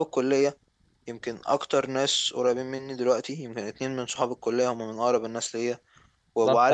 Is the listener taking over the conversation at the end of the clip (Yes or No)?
Yes